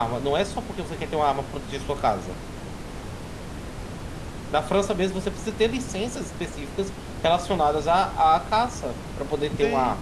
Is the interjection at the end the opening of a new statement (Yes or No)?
Yes